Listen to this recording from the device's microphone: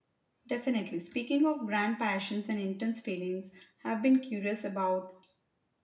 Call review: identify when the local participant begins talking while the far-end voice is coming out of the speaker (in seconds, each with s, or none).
0.5 s